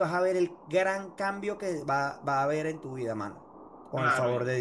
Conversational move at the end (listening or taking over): taking over